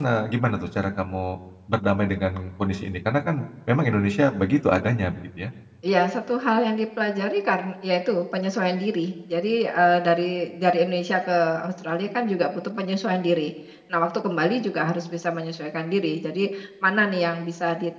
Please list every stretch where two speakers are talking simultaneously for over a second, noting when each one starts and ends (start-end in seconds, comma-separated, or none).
none